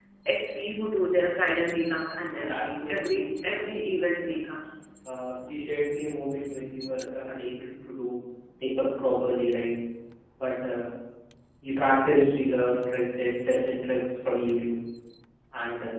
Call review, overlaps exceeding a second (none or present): present